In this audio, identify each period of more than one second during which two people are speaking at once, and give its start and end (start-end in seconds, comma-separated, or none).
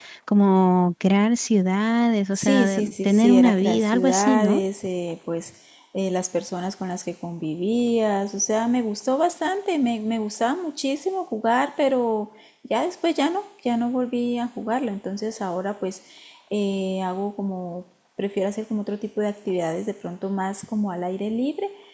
2.4-4.6